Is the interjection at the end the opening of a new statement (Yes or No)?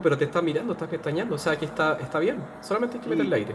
Yes